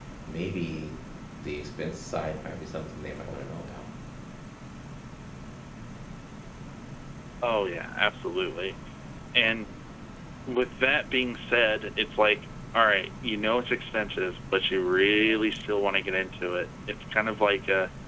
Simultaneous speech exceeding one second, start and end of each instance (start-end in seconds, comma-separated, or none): none